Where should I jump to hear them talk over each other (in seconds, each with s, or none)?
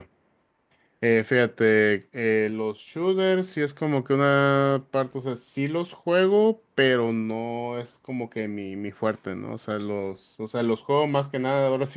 none